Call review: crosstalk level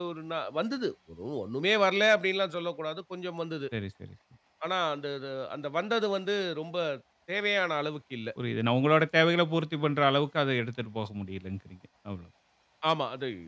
none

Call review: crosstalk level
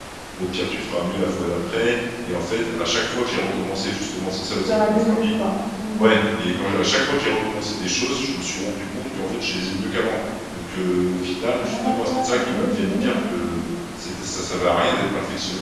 present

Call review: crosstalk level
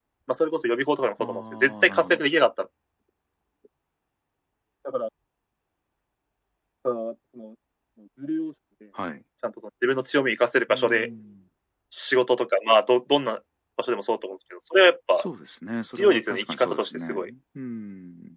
present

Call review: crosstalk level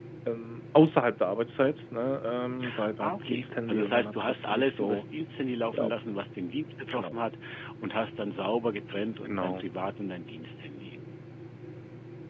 present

